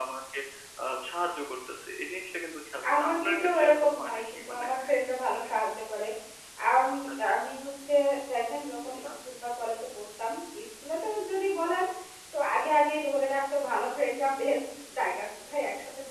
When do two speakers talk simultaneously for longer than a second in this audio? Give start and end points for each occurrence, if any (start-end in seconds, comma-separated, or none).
2.9-4.6